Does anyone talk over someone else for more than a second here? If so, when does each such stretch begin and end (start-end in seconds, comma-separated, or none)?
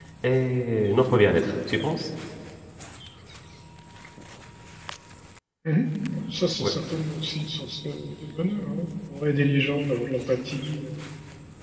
none